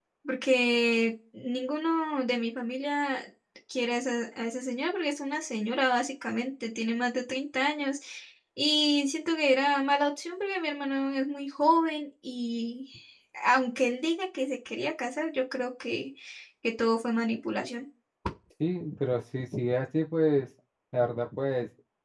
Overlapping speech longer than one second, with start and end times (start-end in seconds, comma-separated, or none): none